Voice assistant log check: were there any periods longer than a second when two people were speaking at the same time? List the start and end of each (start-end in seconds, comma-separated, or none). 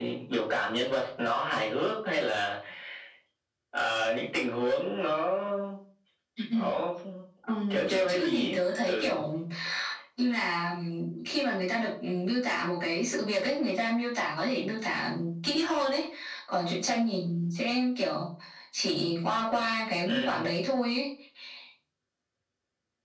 7.7-9.1